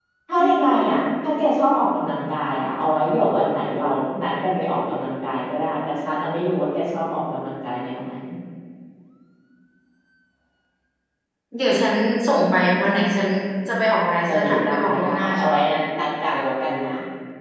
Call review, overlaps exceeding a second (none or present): present